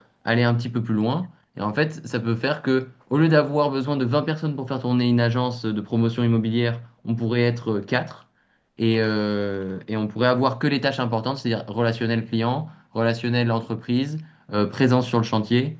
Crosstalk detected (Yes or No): No